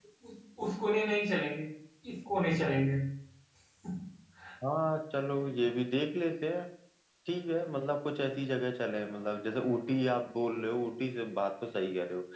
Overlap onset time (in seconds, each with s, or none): none